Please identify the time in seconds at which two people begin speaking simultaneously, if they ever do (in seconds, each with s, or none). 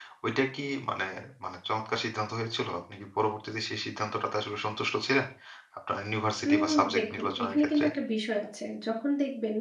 6.5 s